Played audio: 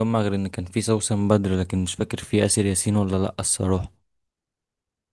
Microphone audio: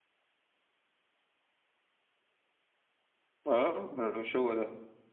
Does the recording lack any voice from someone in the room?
No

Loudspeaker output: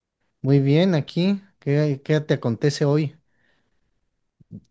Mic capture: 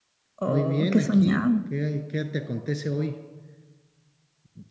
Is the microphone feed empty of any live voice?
No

